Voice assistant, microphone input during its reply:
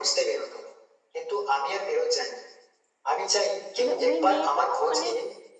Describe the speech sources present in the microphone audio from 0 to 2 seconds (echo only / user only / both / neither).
echo only